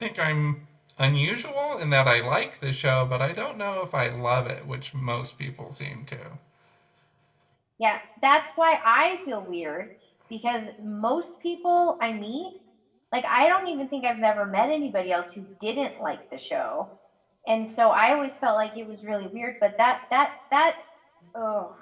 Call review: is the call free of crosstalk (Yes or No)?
Yes